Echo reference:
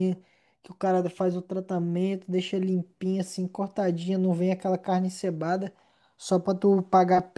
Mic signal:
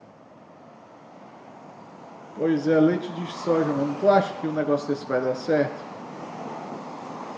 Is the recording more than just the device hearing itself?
Yes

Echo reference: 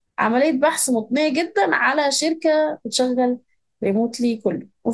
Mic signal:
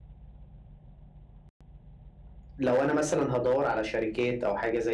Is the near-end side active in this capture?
Yes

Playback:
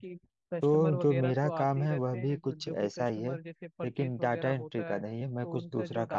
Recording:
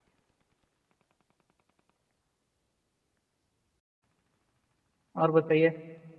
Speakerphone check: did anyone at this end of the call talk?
Yes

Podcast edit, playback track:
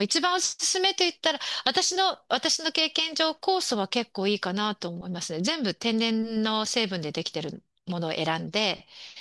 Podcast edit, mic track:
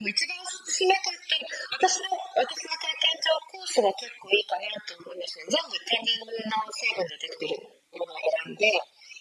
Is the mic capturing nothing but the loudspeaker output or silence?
Yes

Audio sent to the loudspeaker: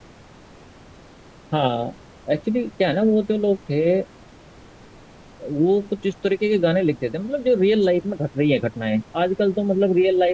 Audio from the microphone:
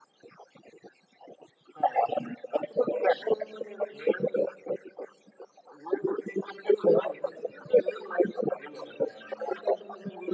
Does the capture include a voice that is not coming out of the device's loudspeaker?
No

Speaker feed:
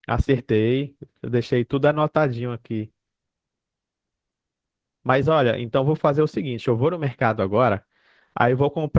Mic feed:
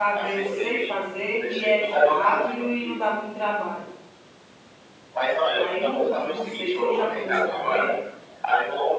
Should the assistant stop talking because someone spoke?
Yes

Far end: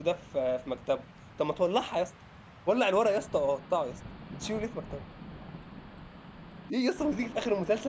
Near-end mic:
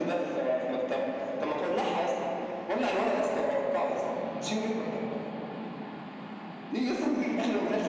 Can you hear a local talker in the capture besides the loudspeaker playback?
No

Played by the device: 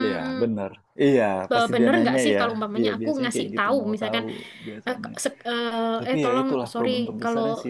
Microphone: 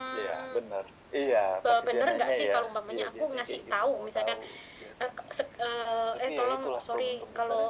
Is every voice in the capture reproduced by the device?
Yes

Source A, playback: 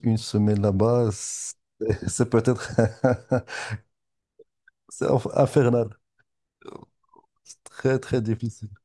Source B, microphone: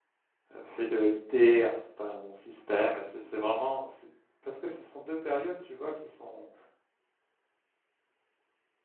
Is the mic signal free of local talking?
No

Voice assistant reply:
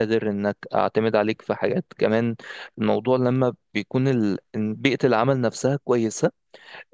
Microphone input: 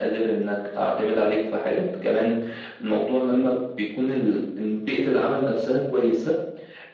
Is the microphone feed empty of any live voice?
Yes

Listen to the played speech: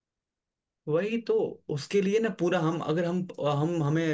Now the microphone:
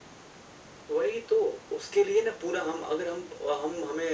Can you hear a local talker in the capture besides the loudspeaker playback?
No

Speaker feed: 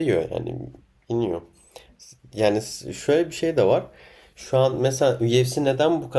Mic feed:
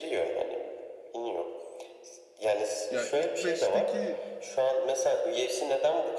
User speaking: Yes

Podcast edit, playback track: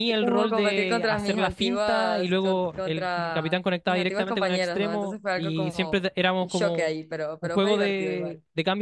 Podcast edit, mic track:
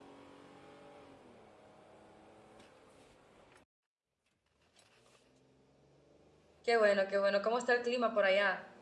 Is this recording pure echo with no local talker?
No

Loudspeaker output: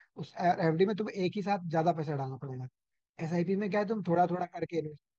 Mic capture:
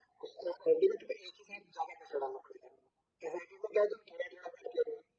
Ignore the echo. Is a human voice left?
No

